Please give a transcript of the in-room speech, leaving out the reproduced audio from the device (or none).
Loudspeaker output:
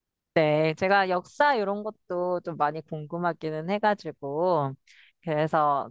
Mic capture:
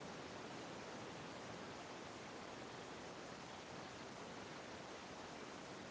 none